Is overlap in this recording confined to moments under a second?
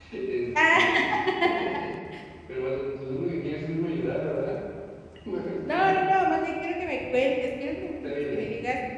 Yes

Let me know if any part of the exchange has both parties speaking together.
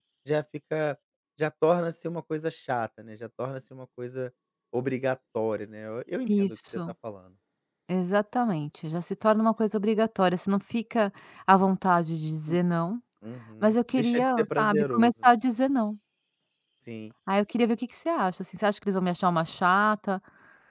Yes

